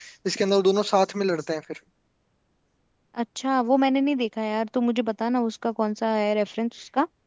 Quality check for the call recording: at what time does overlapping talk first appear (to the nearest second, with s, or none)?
none